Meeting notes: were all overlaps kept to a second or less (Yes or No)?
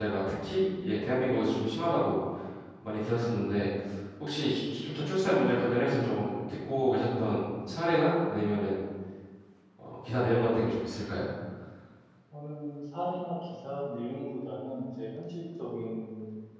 Yes